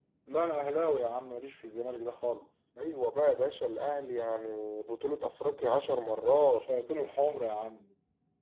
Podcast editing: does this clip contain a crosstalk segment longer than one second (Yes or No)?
No